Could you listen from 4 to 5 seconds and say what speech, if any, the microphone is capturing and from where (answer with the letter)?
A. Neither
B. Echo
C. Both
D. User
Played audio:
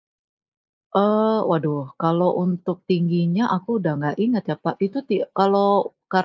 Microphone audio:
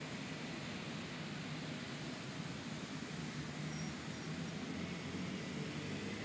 A